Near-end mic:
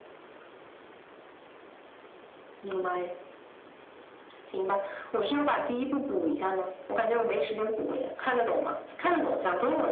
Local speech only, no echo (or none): none